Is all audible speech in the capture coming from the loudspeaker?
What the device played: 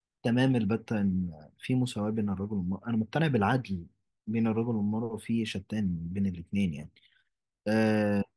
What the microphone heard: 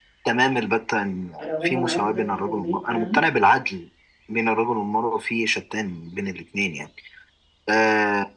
No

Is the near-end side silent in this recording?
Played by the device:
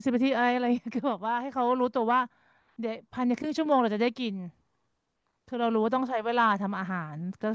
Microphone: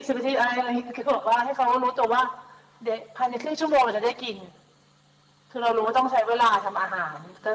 Yes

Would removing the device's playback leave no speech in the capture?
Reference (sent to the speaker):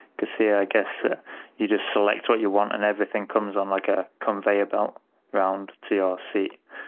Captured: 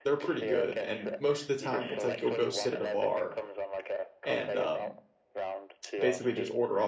No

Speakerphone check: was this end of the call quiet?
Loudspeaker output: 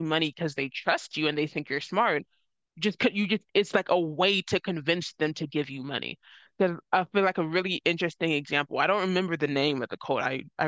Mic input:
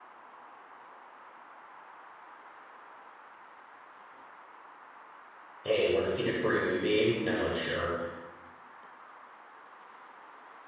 No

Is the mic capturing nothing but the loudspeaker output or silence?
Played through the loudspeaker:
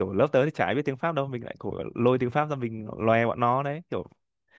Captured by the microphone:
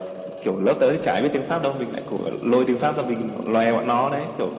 Yes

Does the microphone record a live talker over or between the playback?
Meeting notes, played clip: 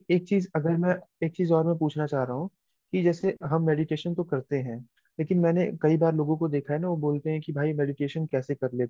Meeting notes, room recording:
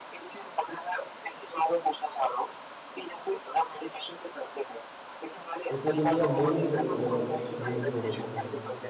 Yes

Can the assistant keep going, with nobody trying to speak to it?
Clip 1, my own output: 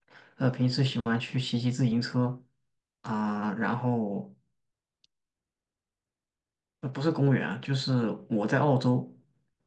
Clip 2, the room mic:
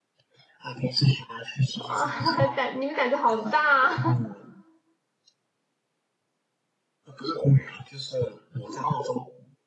No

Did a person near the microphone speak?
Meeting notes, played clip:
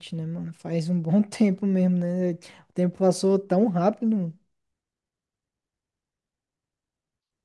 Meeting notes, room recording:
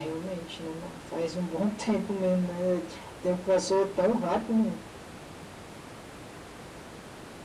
No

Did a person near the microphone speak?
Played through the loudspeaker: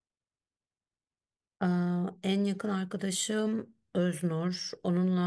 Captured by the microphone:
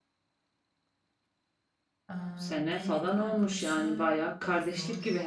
Yes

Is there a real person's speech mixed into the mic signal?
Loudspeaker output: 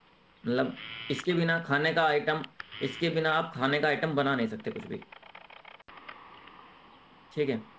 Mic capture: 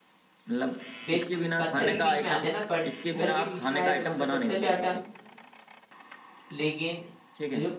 Yes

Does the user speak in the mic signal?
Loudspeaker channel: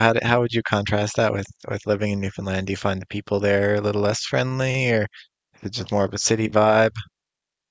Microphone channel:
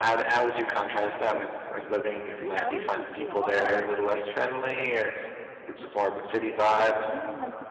Yes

